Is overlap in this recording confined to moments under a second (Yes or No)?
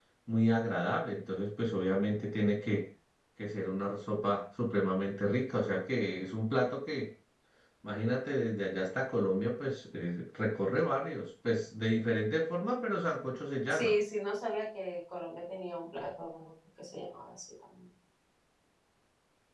Yes